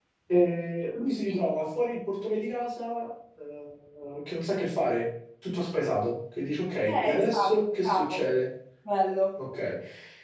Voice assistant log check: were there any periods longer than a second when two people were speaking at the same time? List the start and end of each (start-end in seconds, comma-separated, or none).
6.9-8.3